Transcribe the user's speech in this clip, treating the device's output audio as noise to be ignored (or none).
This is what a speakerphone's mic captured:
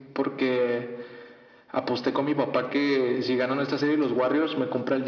none